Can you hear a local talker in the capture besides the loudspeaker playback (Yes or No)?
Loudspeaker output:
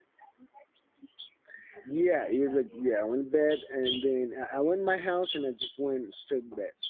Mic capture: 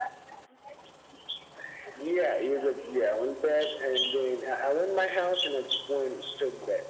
No